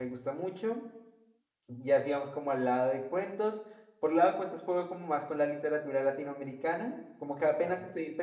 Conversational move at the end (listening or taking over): listening